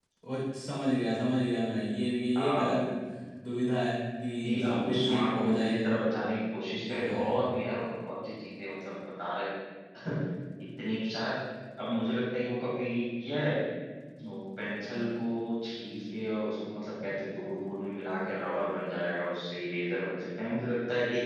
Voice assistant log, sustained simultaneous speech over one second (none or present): present